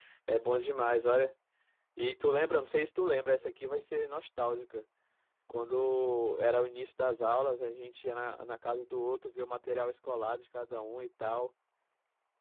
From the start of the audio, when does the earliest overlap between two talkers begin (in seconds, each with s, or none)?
none